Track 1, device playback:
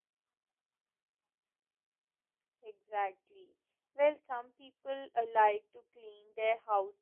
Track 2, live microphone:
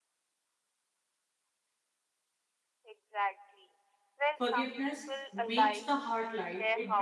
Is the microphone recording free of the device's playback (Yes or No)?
No